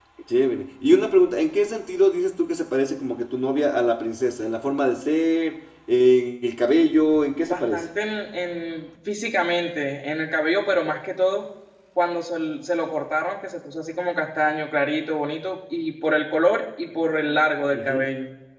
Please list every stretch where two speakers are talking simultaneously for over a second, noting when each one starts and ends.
none

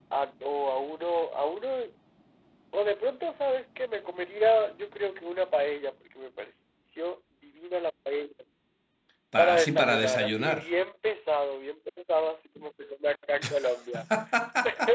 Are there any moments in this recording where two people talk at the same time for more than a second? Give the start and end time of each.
9.4-10.7

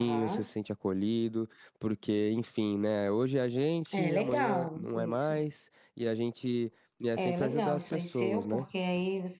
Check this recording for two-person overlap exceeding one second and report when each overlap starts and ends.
3.9-5.3, 7.2-8.6

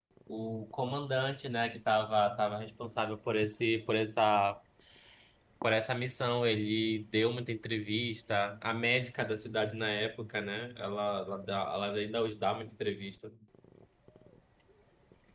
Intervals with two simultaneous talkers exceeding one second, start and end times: none

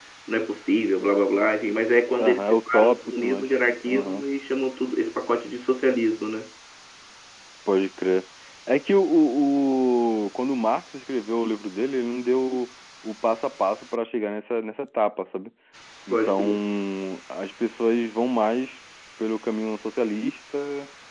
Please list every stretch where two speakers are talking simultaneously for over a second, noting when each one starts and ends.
2.2-4.2

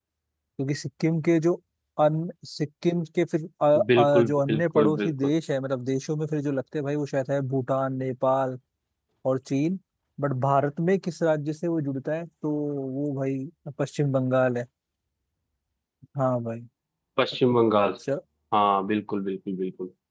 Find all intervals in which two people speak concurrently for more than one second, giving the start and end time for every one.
4.0-5.3

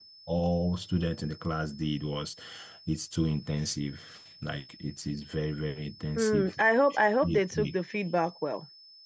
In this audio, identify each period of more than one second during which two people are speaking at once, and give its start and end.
none

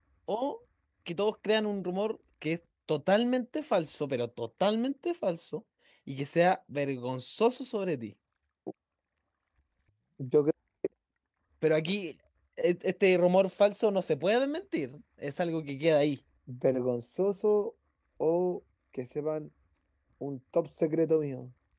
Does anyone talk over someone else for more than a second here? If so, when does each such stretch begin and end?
none

